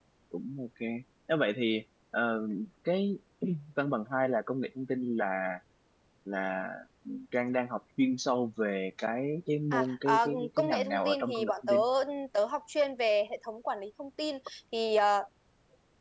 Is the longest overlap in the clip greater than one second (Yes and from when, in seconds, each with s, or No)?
Yes, from 9.7 s